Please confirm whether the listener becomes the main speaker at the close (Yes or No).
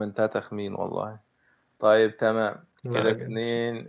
No